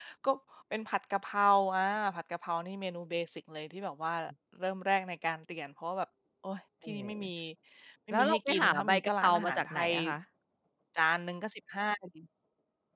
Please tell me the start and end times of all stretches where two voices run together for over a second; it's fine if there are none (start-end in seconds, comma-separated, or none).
8.1-9.9